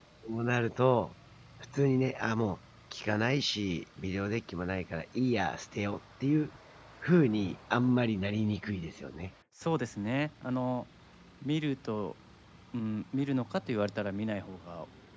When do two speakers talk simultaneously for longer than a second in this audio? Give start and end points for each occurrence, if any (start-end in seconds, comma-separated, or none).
none